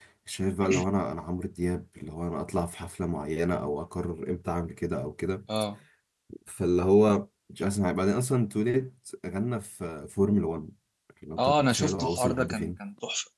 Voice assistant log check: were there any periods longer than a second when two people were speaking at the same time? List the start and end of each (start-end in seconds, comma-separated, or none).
11.4-12.8